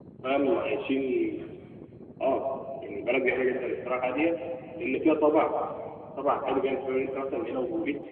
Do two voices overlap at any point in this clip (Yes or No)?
No